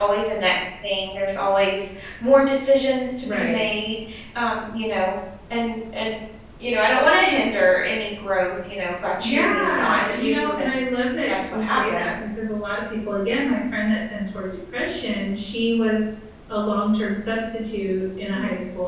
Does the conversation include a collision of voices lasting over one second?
Yes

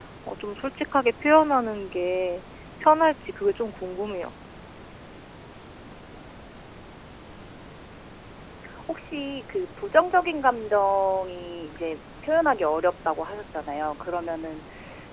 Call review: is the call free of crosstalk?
Yes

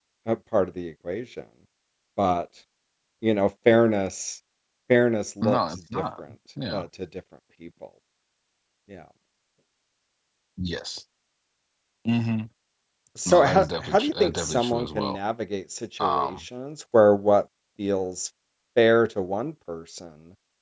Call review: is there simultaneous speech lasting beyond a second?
Yes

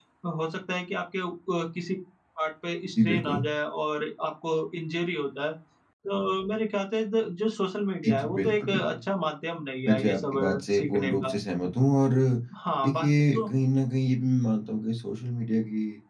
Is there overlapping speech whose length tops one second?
Yes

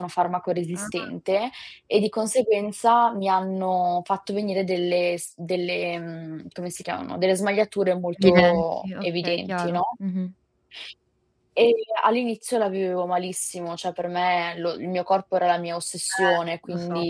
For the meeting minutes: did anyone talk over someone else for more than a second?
Yes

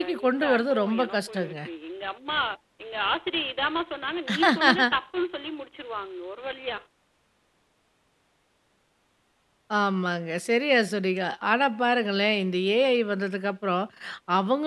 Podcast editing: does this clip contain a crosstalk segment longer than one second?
Yes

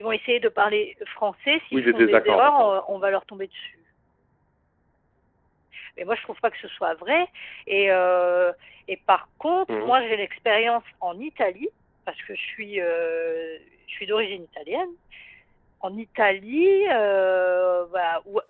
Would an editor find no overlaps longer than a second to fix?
No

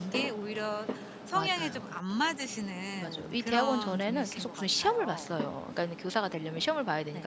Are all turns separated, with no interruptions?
No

